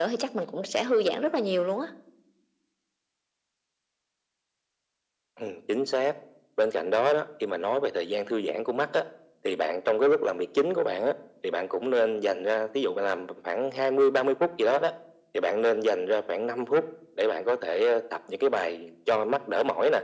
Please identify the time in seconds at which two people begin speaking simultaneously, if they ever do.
none

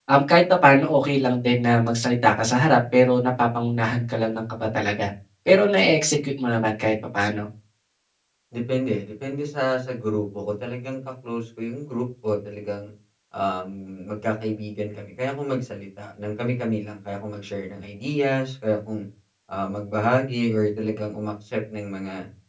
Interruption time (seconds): none

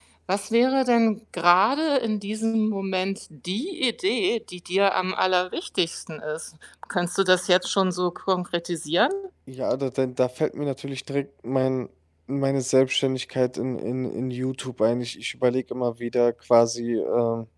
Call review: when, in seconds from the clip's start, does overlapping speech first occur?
none

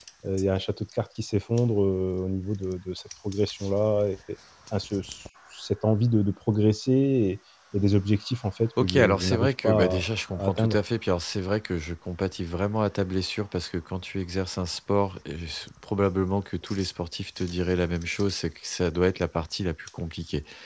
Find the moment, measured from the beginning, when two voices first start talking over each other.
8.8 s

